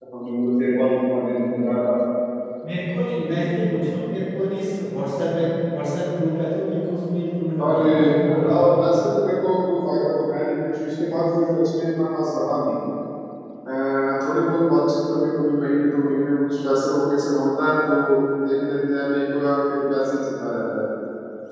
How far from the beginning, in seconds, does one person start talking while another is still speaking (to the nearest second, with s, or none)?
8 s